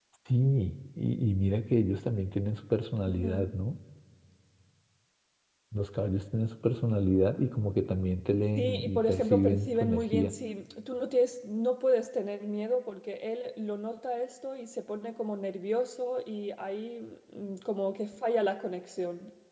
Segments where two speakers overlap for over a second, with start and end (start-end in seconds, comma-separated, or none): 8.6-10.3